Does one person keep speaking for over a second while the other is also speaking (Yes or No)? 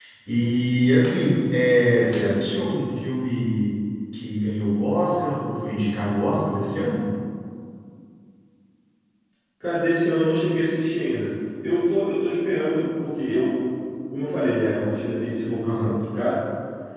No